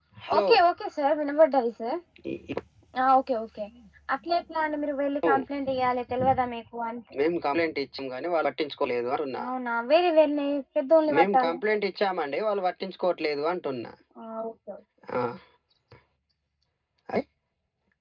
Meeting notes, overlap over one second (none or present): none